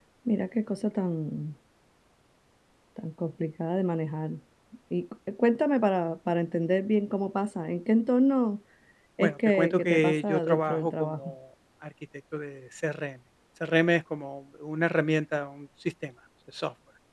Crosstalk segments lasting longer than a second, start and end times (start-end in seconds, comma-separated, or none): 9.2-11.3